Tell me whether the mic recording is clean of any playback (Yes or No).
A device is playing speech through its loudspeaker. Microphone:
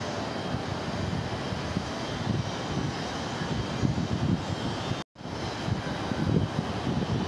Yes